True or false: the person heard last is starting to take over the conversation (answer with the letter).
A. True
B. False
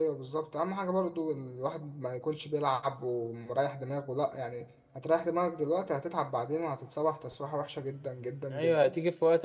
A